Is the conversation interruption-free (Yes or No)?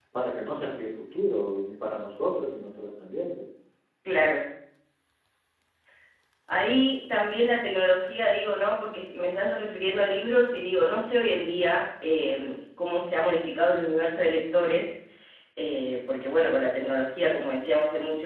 Yes